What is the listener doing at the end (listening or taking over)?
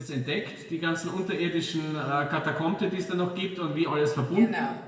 listening